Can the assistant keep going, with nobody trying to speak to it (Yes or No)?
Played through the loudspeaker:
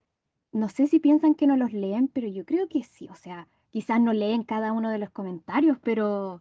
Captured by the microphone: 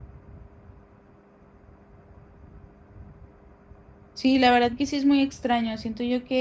No